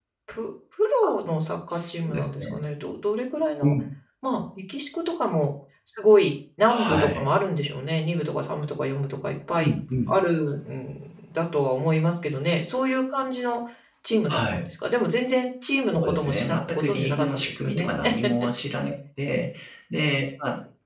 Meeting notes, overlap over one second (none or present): present